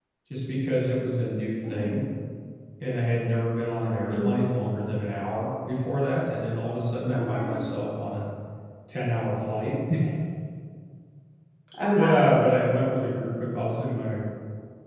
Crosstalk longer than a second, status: none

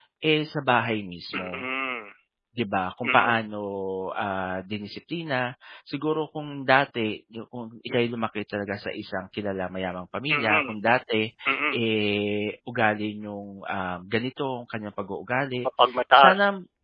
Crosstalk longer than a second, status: none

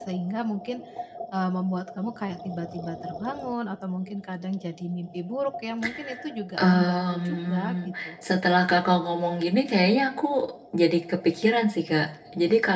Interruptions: present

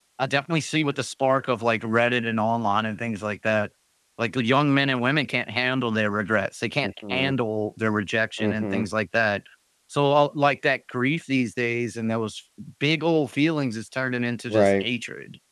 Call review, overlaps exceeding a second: none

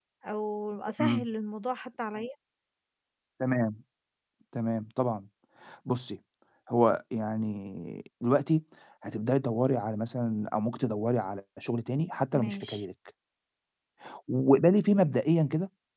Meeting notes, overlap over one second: none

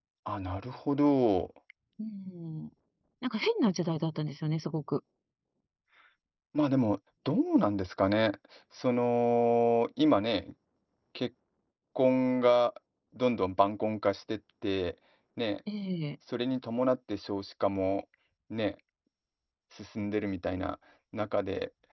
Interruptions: none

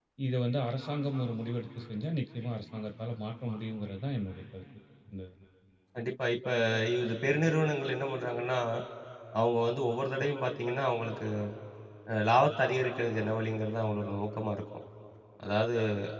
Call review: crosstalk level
none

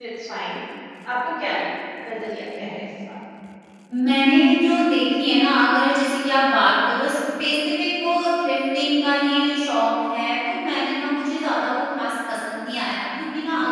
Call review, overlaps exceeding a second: none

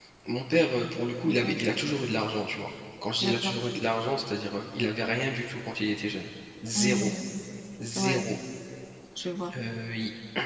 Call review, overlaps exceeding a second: none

